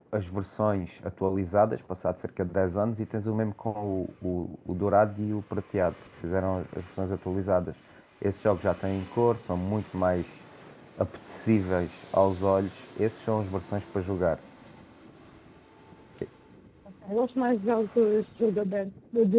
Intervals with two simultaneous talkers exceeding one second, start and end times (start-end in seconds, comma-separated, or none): none